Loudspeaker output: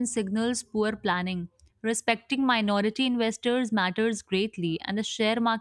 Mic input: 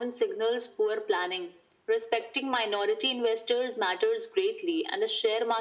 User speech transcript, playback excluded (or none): none